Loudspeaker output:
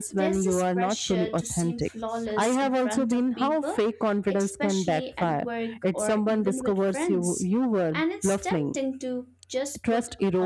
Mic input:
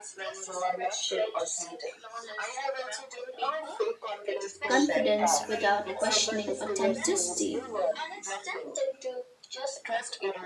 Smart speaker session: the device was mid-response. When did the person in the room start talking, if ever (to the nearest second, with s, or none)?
5 s